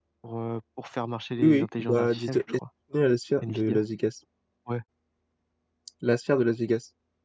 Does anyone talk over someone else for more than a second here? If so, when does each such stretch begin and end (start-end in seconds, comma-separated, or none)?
1.4-2.6